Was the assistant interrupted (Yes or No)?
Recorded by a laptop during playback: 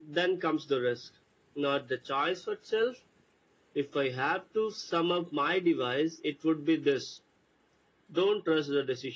No